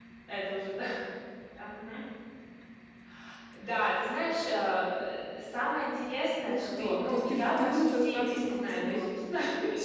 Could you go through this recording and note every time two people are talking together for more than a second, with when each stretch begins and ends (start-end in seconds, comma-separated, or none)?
6.5-9.1